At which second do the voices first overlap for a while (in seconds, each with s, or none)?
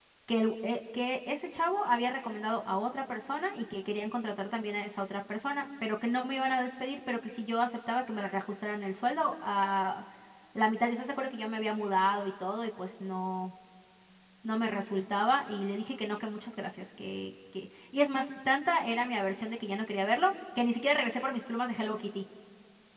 none